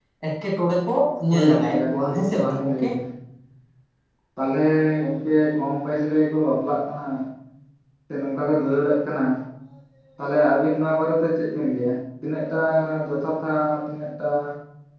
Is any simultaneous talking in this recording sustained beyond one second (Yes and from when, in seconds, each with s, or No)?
Yes, from 1.3 s